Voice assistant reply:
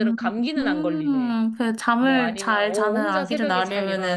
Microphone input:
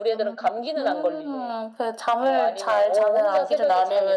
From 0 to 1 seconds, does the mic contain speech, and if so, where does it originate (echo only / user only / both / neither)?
echo only